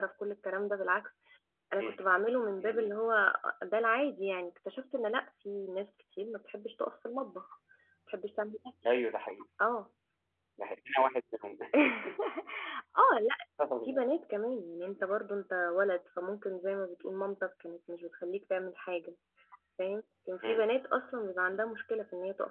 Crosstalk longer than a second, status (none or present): none